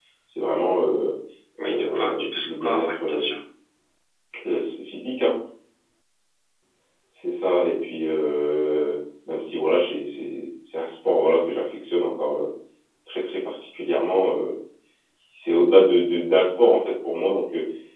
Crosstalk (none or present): present